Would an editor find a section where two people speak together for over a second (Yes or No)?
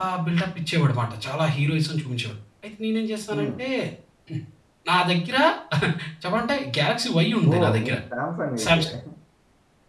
No